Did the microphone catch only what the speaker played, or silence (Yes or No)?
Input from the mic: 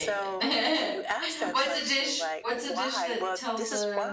No